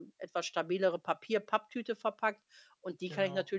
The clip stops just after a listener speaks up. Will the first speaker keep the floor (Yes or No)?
Yes